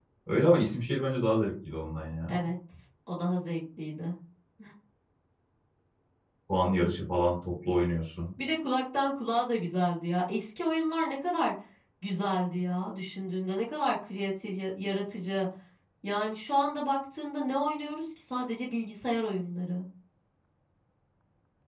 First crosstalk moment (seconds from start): none

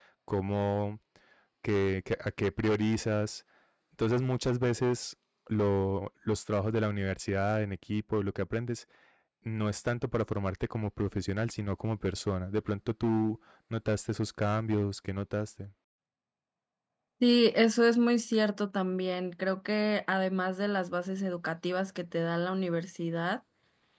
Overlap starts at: none

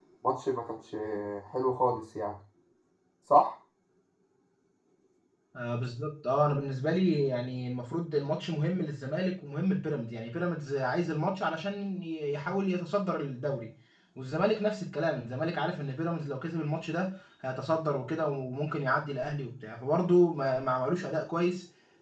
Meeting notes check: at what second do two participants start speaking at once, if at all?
none

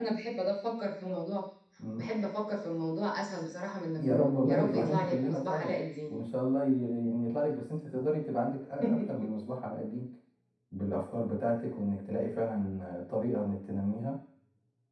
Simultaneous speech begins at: 4.0 s

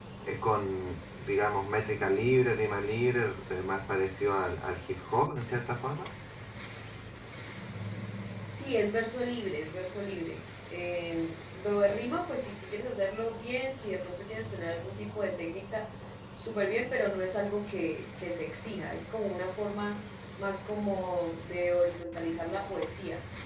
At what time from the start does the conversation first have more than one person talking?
none

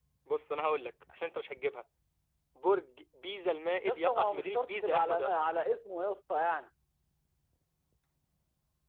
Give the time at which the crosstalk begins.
3.9 s

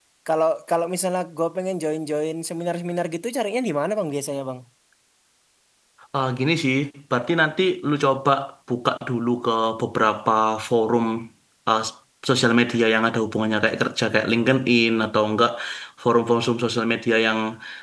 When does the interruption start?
none

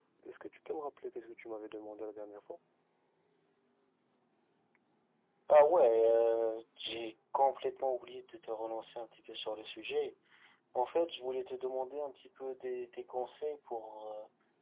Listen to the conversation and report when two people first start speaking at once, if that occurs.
none

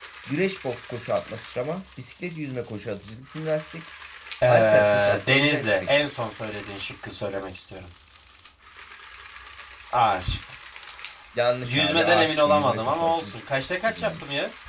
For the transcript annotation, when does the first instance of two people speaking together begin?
4.5 s

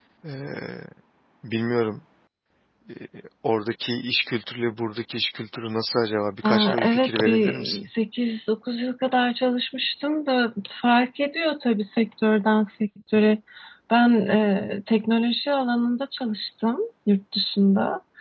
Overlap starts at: 6.4 s

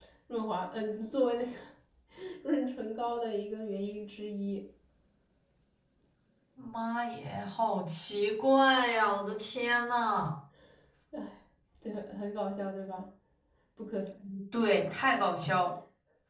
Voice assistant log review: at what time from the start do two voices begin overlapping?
none

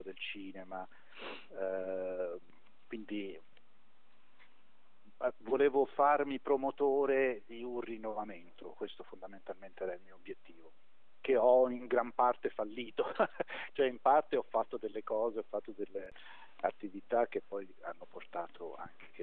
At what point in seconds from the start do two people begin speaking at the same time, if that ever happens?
none

